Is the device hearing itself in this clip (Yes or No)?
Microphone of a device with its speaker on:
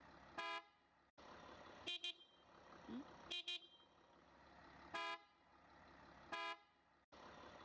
No